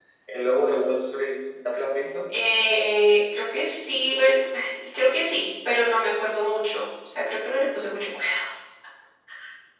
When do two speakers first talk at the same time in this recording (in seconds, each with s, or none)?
none